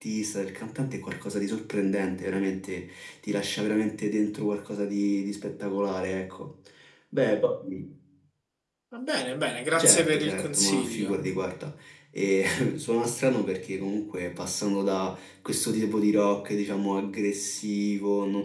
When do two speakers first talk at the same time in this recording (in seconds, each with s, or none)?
9.7 s